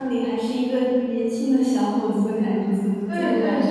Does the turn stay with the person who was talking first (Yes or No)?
No